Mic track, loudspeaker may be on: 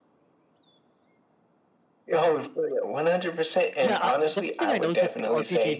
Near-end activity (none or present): present